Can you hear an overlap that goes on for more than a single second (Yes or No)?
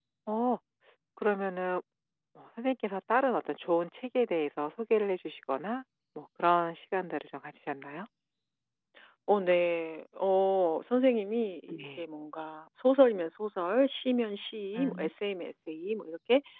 No